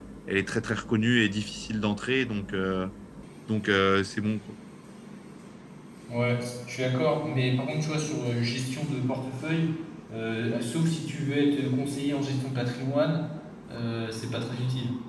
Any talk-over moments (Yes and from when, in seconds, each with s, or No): No